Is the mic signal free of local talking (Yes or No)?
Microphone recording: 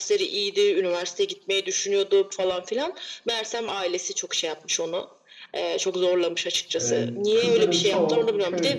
No